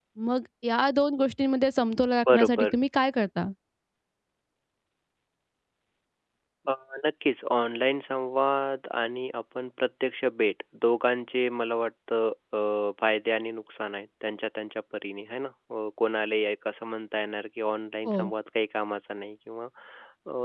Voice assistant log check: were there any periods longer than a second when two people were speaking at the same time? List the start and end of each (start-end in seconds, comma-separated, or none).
none